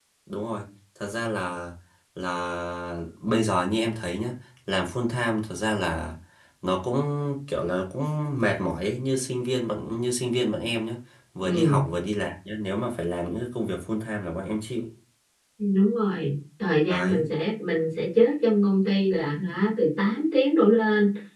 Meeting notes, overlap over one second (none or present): none